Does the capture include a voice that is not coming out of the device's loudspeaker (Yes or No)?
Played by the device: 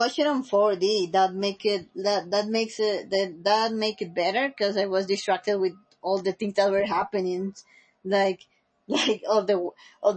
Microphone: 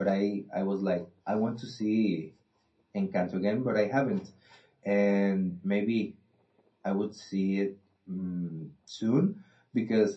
Yes